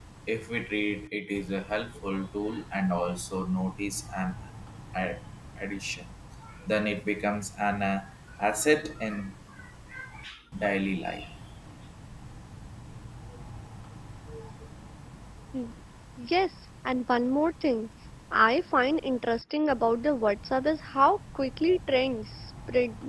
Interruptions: none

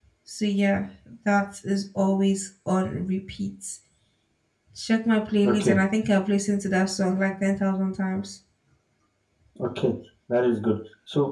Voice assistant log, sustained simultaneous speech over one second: none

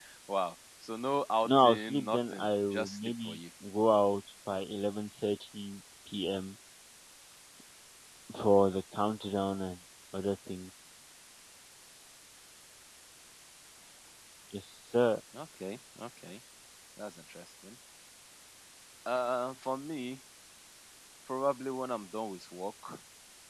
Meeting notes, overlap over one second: present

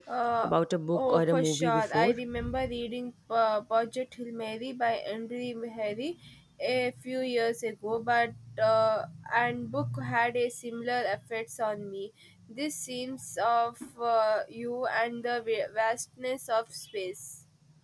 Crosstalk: present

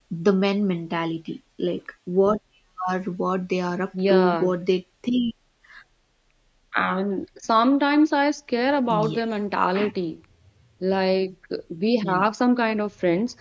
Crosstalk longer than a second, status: none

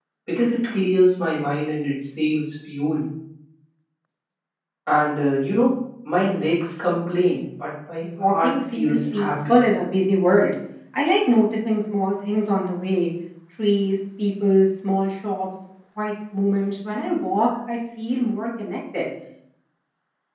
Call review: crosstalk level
present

